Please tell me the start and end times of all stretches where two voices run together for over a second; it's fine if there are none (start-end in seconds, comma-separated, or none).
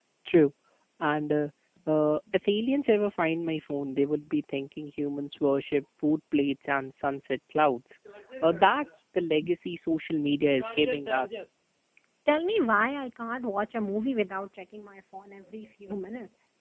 none